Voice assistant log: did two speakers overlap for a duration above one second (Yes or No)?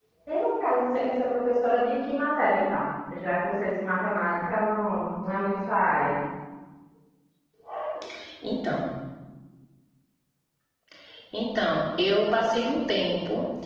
No